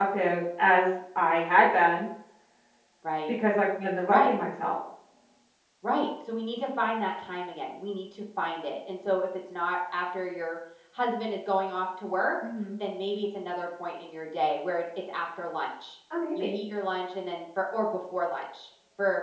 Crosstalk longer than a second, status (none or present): none